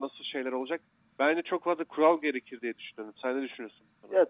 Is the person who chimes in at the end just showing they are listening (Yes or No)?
No